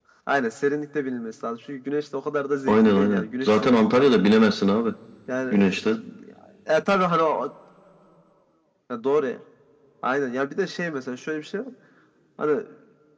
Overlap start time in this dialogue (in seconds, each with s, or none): 2.7 s